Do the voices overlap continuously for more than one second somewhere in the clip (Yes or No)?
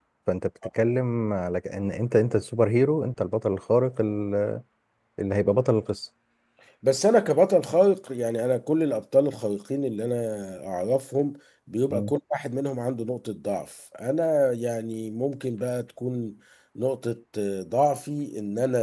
No